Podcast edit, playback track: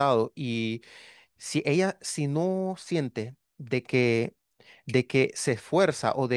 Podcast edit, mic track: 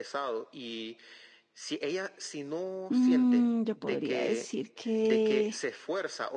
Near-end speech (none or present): present